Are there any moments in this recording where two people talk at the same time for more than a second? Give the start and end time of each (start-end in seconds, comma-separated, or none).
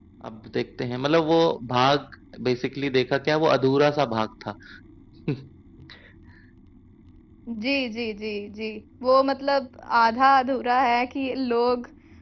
none